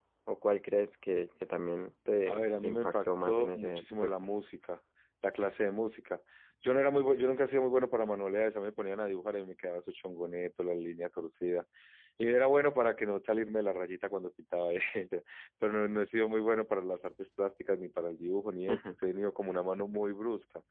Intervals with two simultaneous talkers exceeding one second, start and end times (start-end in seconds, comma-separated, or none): 2.3-4.1